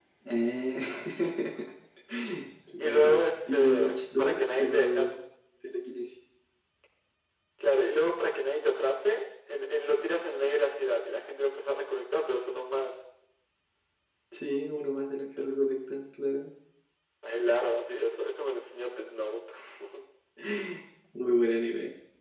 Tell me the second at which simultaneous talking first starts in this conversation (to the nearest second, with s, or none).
3 s